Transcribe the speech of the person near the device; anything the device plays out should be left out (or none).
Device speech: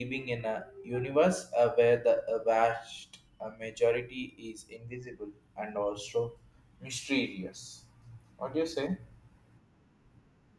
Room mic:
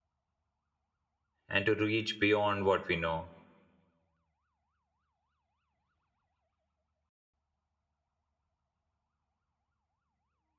and to reach beyond what we know.